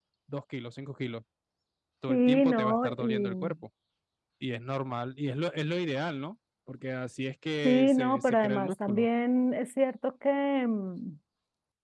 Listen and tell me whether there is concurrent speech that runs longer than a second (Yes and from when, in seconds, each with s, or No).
Yes, from 2.1 s